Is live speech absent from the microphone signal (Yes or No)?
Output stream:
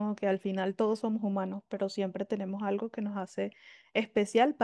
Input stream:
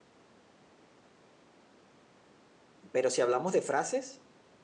No